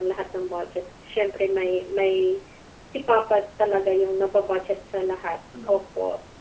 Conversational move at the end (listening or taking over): taking over